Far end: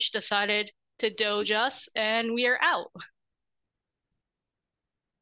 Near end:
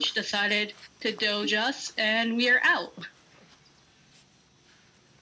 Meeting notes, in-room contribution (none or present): none